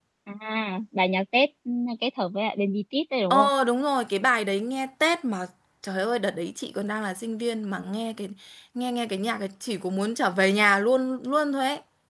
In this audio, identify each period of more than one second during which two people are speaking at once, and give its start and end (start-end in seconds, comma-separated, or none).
none